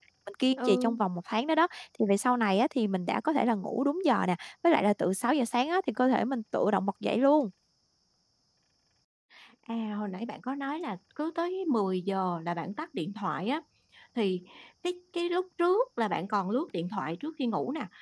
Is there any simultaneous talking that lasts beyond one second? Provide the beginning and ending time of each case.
none

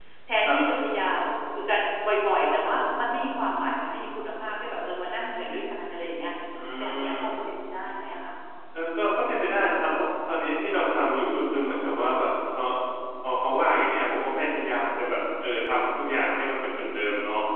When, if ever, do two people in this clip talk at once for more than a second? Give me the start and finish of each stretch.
none

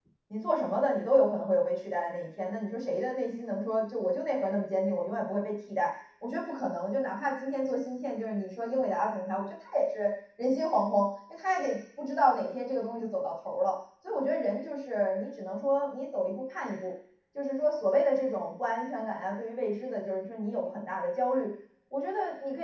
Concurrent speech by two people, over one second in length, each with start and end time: none

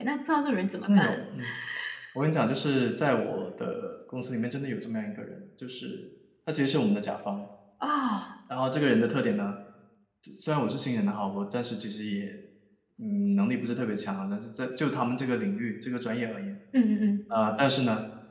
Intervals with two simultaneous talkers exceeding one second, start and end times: none

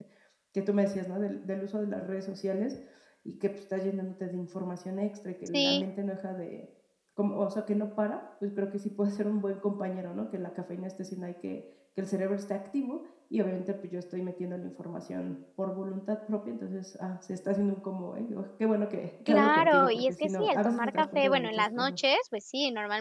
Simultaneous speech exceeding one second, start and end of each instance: 19.3-21.9

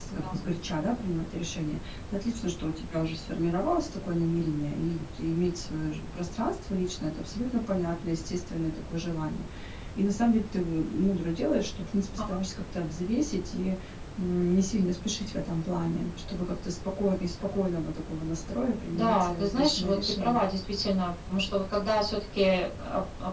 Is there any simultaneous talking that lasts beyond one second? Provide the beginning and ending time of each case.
18.9-20.4

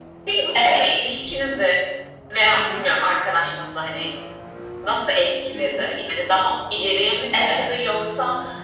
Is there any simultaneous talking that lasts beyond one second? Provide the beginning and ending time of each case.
none

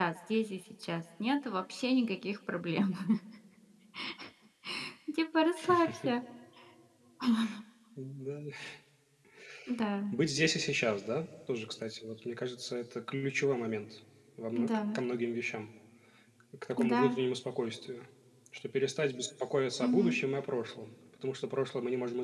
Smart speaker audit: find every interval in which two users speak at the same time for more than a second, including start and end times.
none

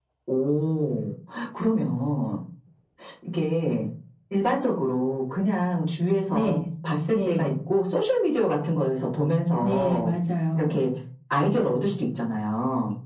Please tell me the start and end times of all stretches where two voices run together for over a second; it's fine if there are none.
none

